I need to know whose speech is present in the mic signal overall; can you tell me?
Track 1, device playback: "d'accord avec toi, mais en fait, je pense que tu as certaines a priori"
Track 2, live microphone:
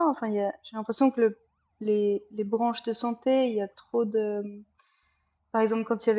user only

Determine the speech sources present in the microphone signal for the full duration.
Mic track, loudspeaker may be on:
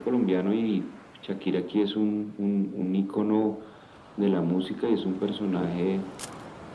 echo only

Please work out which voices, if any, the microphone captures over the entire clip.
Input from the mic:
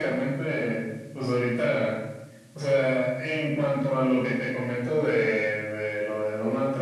echo only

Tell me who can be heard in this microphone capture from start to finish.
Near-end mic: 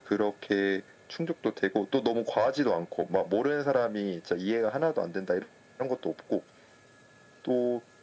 echo only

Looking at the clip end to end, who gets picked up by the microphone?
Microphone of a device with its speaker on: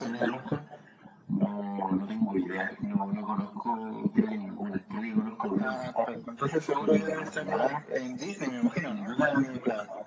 echo only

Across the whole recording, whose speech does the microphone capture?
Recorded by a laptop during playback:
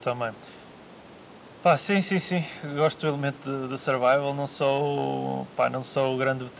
echo only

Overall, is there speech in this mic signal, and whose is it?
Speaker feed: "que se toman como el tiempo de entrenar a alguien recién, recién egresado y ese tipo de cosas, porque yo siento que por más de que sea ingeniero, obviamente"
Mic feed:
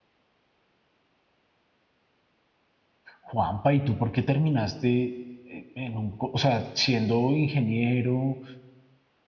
user only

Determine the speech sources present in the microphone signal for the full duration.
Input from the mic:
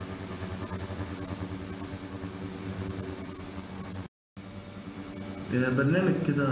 user only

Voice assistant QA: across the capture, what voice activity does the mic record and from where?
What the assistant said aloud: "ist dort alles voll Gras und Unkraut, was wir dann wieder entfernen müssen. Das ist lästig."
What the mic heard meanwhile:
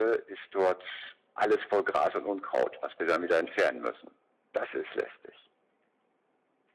echo only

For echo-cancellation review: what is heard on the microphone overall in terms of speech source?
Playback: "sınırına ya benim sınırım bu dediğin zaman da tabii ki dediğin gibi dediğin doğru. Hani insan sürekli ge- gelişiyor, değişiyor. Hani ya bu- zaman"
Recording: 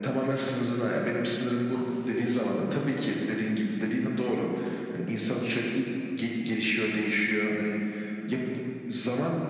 both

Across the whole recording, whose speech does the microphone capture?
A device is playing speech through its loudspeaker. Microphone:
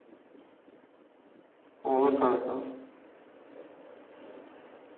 user only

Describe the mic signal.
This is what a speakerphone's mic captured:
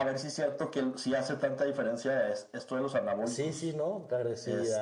both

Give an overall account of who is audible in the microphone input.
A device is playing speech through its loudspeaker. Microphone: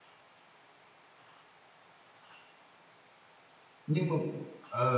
user only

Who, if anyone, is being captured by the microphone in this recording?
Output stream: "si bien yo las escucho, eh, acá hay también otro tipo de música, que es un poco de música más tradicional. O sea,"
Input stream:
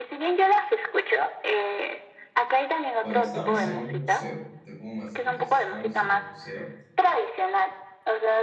both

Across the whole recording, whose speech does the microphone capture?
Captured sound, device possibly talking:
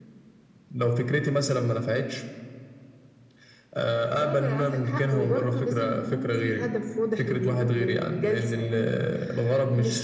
echo only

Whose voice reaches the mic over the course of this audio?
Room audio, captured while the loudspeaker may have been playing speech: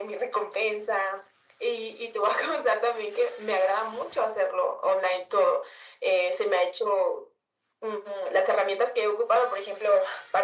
echo only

